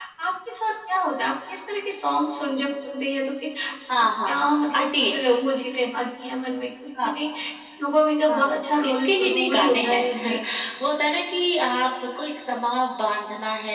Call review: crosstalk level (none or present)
present